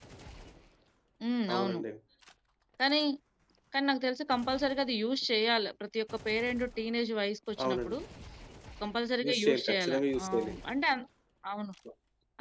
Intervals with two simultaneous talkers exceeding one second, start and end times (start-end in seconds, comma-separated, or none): 9.3-10.5